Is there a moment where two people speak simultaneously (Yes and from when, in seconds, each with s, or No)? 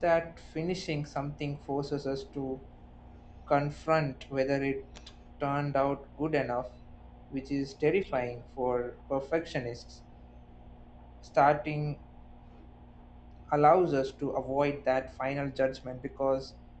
No